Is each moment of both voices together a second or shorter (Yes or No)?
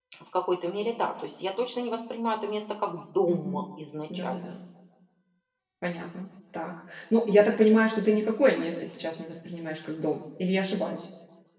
Yes